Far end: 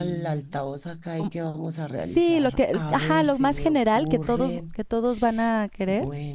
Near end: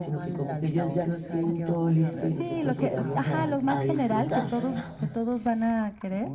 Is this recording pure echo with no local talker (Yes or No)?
No